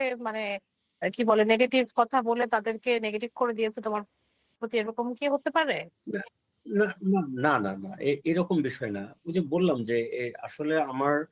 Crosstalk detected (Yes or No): No